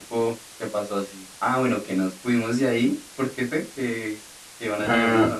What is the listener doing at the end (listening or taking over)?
taking over